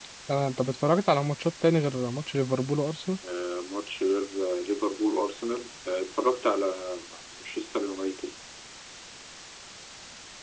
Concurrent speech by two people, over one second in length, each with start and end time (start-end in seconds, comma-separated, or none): none